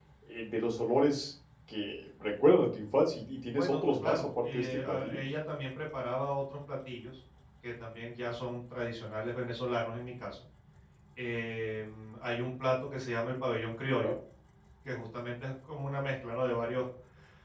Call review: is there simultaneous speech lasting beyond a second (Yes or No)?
Yes